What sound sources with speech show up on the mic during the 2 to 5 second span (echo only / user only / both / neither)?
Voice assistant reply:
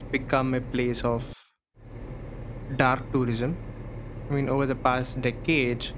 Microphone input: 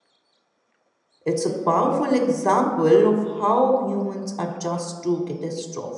user only